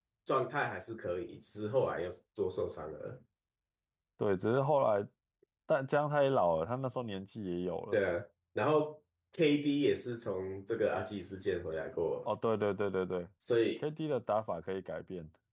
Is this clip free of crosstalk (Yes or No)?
Yes